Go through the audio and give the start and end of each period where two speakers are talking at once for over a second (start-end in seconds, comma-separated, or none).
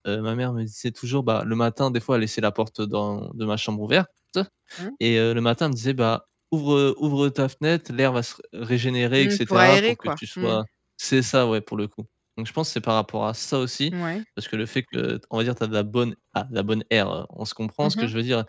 9.2-10.6